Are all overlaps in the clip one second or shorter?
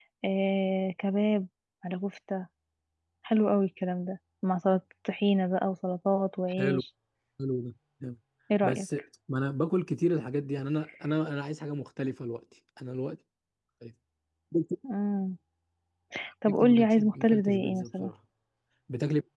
No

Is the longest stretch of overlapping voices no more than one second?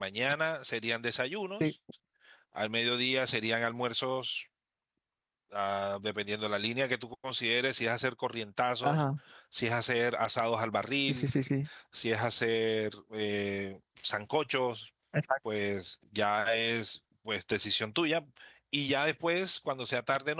Yes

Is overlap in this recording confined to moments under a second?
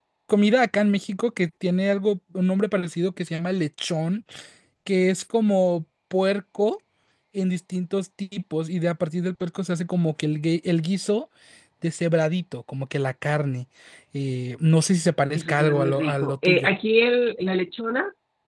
No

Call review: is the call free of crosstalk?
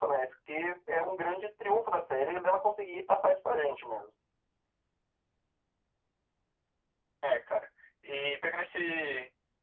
Yes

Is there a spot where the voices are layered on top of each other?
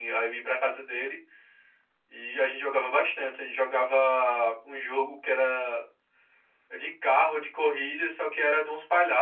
No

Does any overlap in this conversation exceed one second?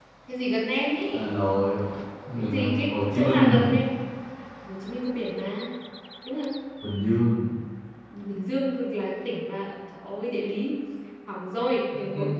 Yes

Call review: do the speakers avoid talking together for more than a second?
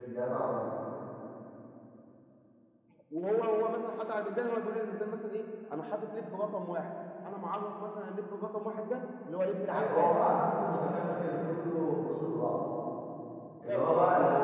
Yes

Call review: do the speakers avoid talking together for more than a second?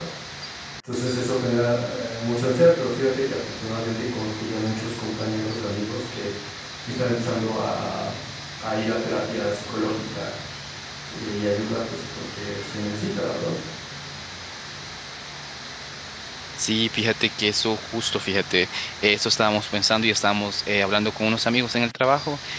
Yes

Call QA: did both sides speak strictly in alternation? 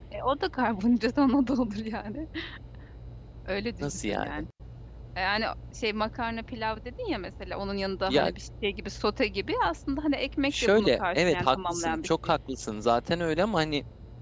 No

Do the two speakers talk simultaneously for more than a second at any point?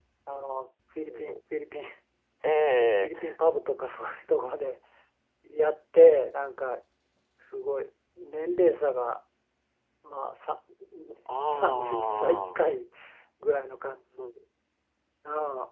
Yes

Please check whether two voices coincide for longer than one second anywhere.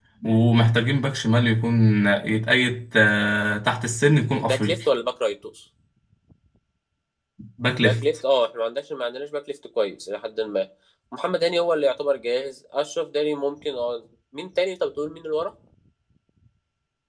No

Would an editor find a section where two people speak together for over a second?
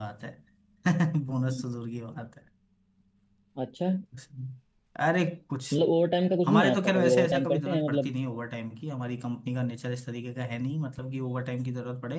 Yes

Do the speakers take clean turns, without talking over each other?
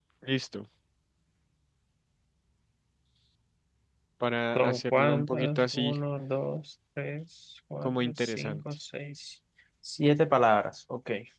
No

